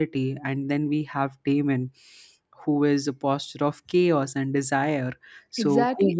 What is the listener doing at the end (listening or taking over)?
taking over